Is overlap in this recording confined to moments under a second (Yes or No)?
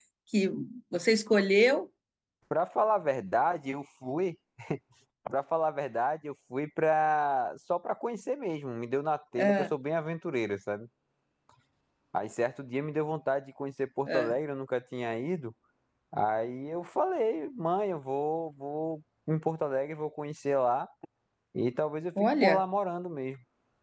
Yes